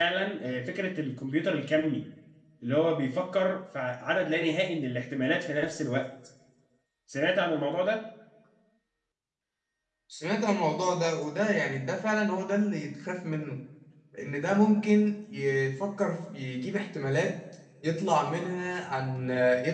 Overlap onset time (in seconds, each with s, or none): none